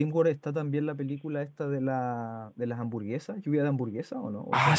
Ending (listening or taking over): taking over